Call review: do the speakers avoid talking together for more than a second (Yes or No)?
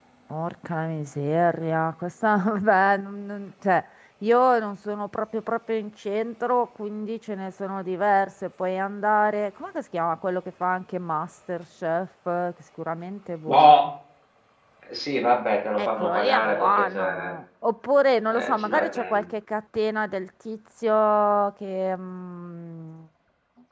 No